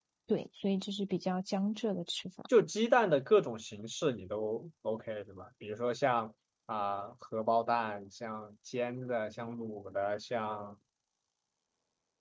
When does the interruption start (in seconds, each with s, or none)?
none